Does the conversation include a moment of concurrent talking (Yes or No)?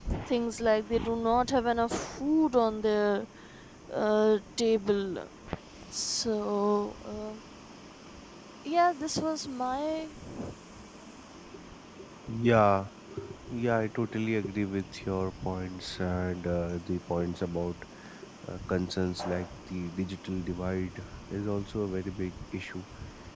No